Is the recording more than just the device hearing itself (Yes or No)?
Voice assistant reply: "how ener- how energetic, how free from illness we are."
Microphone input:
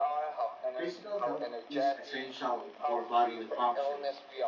Yes